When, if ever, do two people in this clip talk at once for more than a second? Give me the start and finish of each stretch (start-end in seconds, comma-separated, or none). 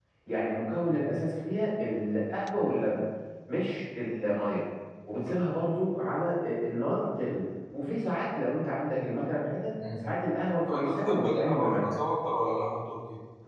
10.7-12.0